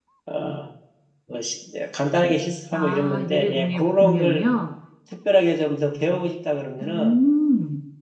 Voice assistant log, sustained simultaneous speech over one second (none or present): present